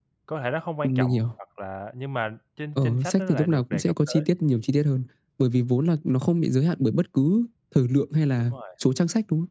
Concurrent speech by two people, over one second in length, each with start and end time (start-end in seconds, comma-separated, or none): 2.8-4.2